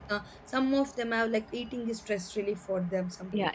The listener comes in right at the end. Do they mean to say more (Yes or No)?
Yes